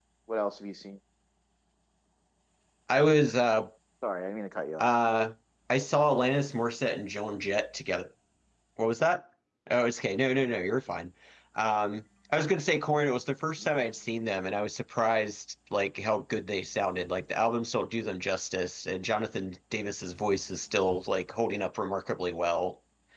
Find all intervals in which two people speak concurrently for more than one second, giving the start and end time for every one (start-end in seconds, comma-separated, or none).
none